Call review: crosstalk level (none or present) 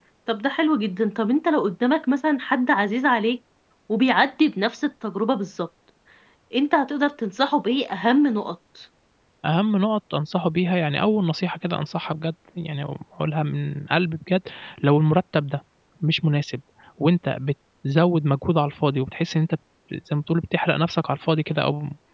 none